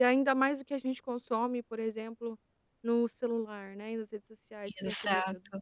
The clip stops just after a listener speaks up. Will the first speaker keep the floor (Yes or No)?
Yes